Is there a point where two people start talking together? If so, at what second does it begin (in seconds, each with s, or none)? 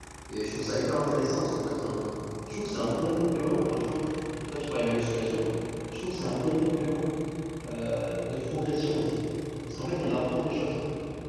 none